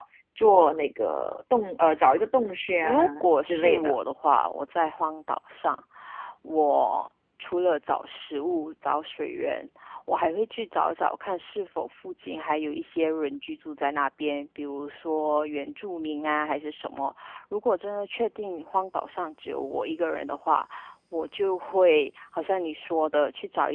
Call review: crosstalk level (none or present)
present